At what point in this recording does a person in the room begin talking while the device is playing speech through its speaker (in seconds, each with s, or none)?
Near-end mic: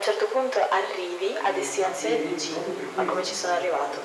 1.3 s